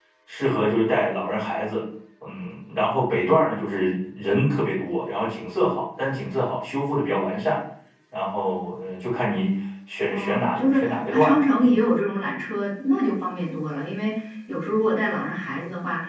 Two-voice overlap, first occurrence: 10 s

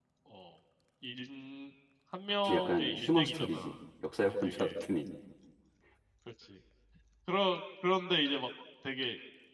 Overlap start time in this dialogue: 2 s

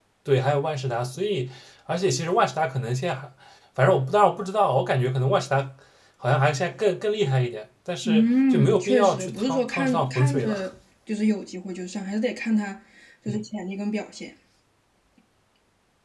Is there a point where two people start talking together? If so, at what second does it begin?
8 s

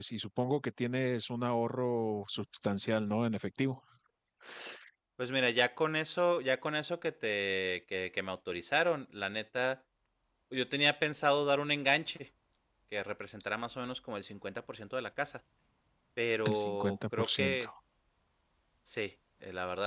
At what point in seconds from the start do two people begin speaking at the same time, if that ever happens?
16 s

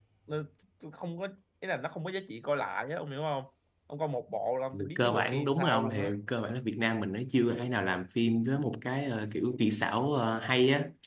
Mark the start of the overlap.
5 s

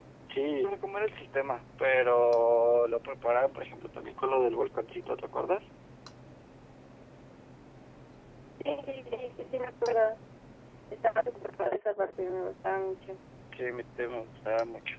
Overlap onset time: none

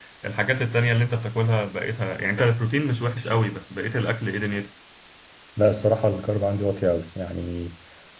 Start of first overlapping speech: none

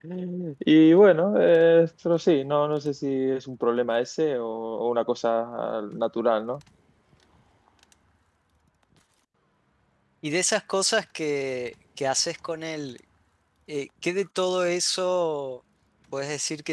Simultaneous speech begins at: none

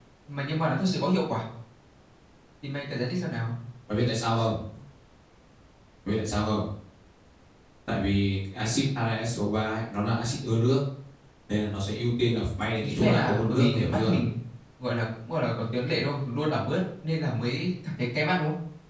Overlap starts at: 13 s

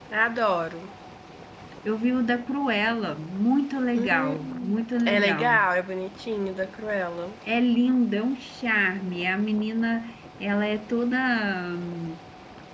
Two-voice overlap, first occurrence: 4 s

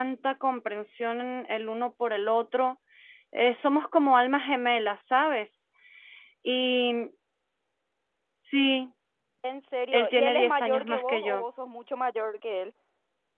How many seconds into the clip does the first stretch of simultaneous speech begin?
10 s

